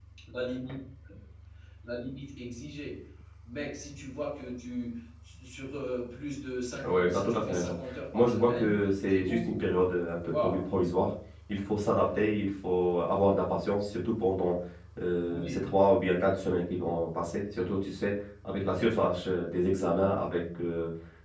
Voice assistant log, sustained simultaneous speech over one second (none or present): present